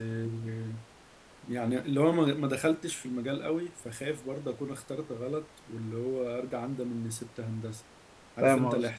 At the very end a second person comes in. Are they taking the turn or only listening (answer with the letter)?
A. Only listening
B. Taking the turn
B